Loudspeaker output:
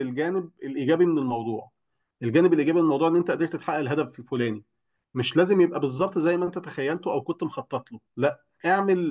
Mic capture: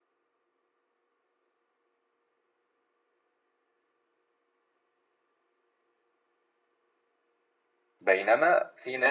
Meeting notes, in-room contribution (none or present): present